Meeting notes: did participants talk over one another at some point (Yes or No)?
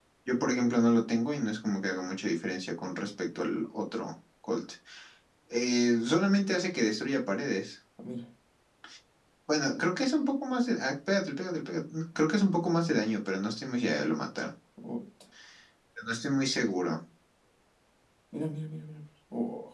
No